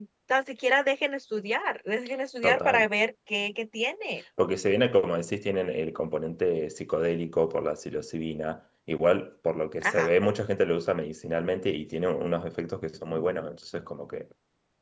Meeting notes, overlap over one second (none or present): none